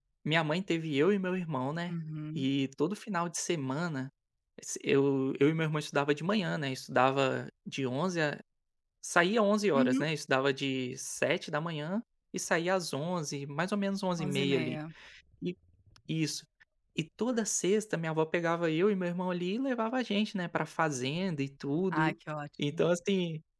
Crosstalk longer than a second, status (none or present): none